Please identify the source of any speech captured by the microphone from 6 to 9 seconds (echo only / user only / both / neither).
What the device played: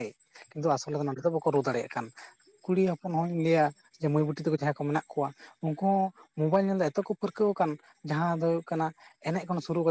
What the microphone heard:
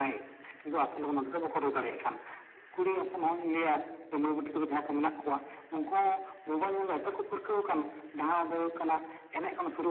echo only